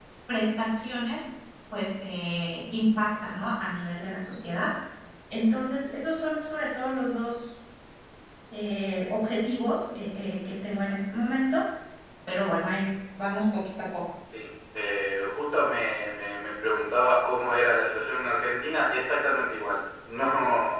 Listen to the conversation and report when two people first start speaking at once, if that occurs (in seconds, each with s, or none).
none